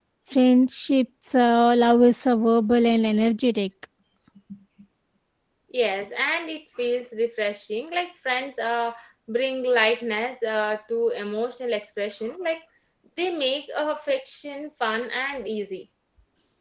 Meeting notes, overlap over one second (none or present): none